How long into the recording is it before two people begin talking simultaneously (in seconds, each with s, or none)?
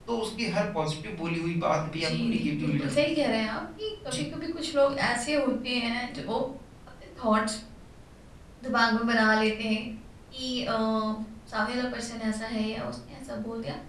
2.0 s